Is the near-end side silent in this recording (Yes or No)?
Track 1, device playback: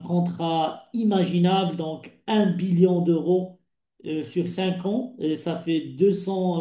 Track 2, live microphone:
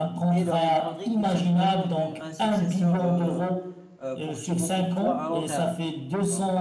No